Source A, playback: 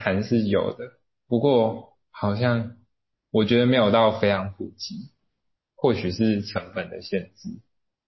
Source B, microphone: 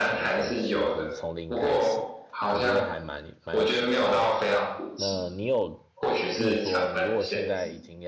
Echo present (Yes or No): Yes